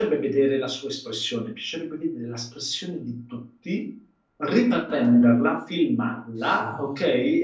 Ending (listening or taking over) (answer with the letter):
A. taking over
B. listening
B